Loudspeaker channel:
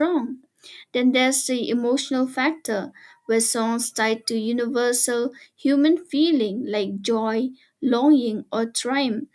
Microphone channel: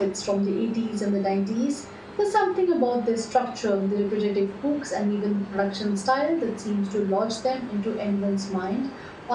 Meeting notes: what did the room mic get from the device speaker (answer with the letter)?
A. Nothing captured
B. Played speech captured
A